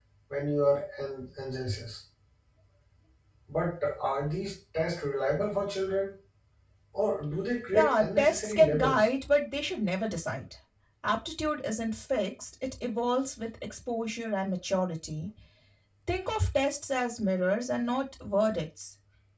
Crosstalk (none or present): present